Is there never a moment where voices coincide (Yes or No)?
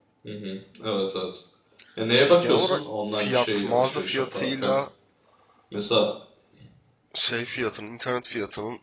No